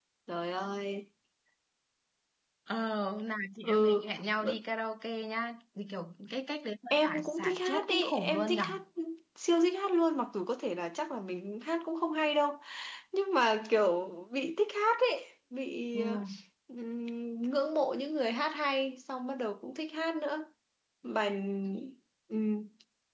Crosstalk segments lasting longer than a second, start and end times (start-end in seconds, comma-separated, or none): 6.9-8.6